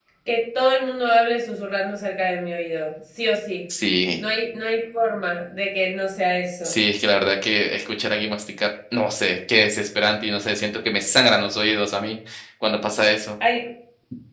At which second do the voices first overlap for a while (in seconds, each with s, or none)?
none